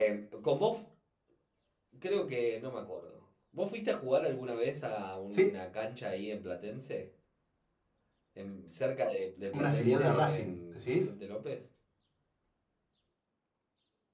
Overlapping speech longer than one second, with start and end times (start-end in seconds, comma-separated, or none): 9.5-11.1